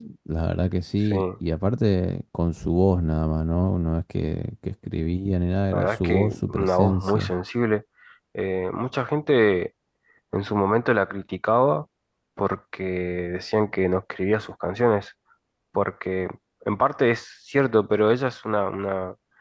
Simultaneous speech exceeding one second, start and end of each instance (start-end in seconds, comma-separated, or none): 5.7-7.3